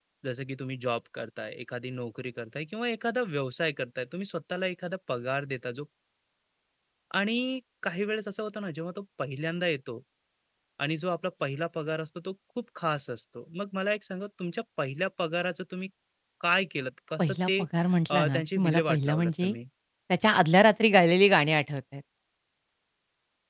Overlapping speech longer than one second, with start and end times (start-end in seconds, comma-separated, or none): 18.1-19.5